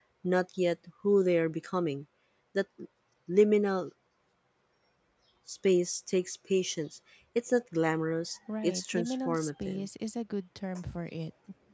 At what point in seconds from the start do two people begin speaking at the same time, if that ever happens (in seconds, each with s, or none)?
8.5 s